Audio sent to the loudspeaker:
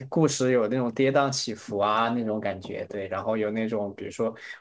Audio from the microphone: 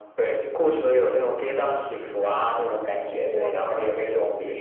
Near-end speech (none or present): present